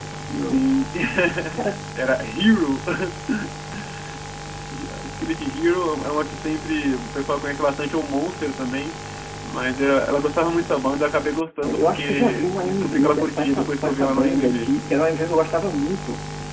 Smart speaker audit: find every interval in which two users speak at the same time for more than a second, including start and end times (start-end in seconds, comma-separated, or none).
11.6-14.7